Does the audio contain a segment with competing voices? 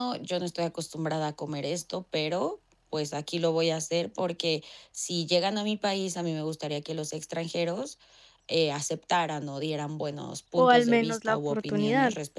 Yes, from 10.6 s

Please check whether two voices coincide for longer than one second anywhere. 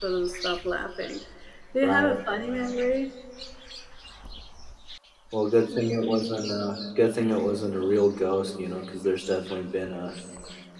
No

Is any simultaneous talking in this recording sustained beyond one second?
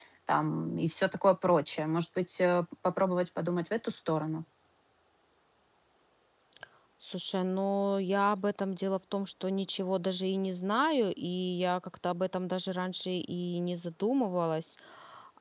No

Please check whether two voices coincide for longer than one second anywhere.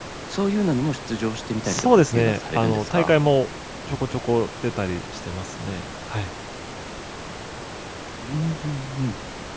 Yes, from 1.6 s

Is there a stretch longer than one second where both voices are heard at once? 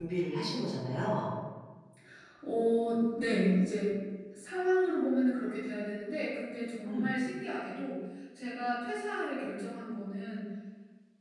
No

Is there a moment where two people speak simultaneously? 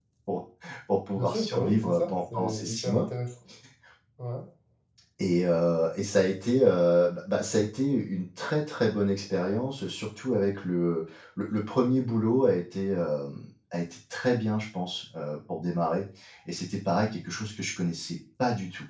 Yes, from 1.1 s

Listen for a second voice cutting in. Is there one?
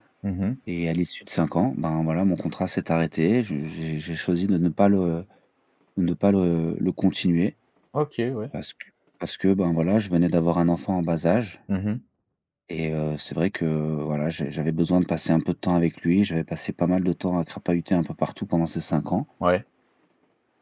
No

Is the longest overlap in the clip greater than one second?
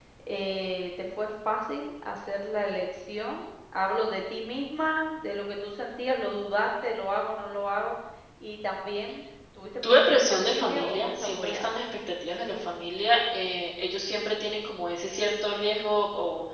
Yes, from 9.8 s

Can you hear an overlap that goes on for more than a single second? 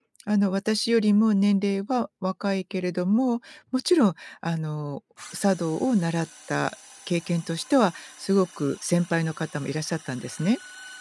No

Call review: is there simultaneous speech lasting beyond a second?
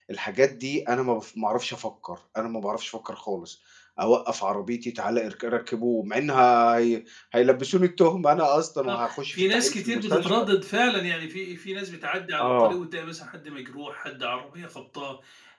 Yes, from 8.9 s

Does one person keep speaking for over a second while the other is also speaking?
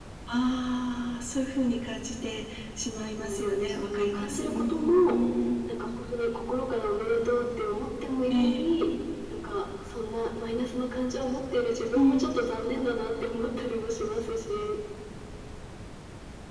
Yes, from 3.2 s

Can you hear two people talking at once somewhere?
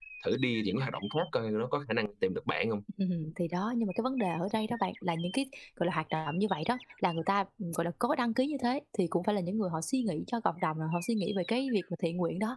No

